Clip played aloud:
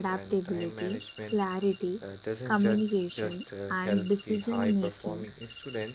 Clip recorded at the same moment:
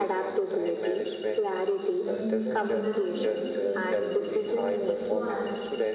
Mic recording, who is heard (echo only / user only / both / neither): both